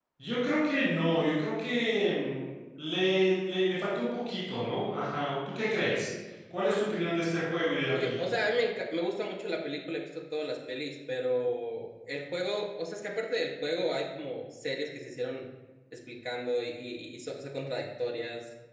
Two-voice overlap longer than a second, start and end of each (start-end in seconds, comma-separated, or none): none